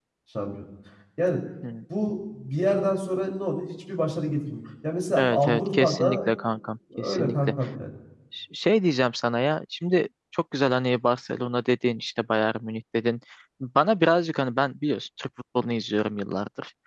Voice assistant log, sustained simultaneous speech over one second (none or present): present